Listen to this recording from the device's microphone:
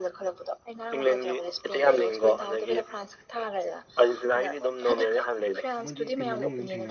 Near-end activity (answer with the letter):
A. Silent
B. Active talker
B